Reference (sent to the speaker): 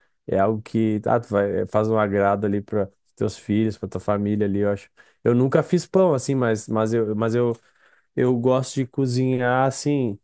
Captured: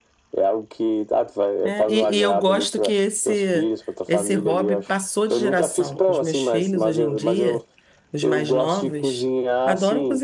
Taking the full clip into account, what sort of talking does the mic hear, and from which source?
both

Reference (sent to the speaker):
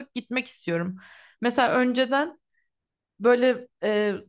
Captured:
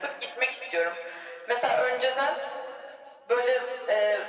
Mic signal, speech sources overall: echo only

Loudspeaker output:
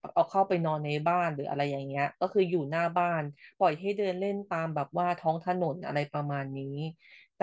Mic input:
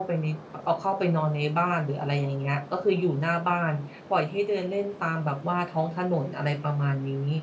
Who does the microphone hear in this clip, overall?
echo only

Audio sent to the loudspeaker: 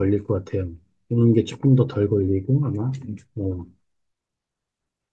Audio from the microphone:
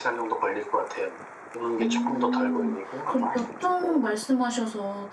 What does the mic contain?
both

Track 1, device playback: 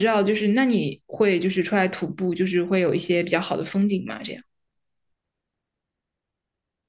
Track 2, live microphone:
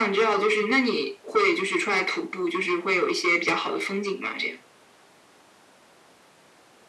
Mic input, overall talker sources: echo only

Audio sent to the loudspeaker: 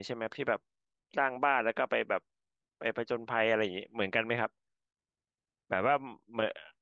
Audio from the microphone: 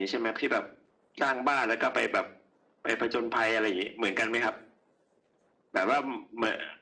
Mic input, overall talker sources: echo only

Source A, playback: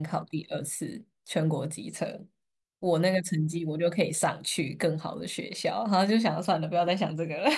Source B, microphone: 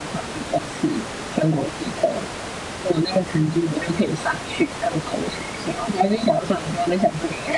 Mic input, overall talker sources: echo only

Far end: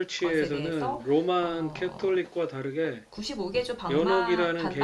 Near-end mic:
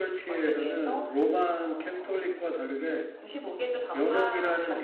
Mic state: echo only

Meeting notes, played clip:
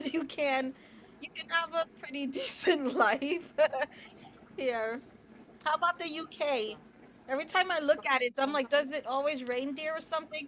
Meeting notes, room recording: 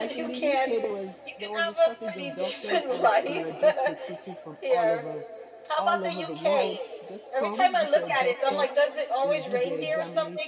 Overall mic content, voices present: both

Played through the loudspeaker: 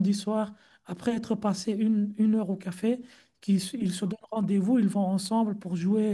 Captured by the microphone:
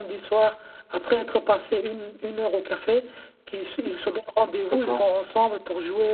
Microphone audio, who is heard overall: both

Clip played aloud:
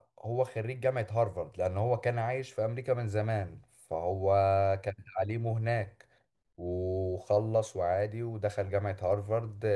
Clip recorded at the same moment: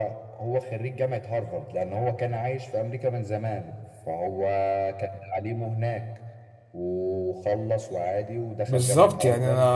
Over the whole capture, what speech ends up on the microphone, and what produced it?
both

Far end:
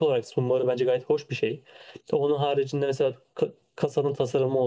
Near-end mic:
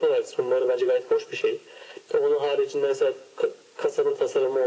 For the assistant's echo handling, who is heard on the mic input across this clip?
echo only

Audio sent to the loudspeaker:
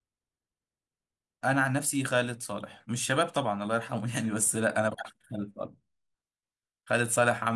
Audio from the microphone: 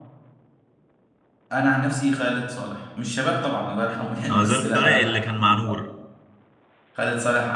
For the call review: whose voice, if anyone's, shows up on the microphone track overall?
both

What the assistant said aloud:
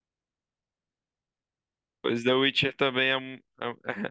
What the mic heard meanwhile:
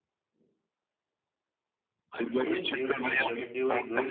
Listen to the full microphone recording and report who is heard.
both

